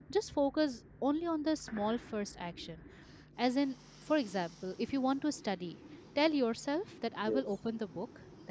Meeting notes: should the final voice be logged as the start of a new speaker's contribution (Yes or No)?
No